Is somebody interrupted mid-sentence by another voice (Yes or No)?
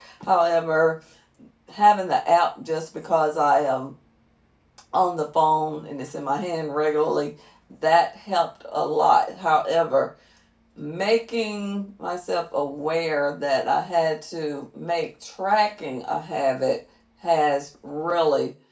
No